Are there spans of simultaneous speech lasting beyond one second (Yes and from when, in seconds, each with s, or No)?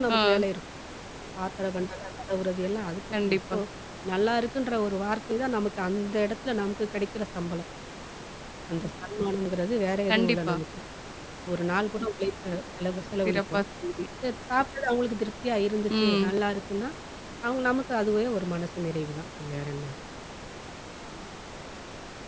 No